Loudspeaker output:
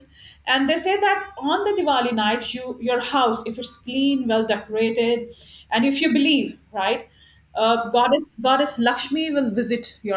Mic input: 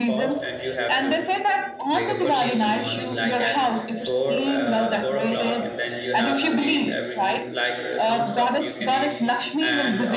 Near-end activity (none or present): present